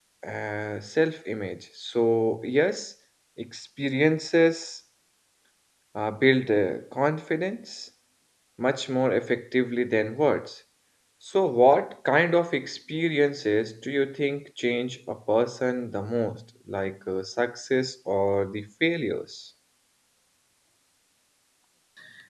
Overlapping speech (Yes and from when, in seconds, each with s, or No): No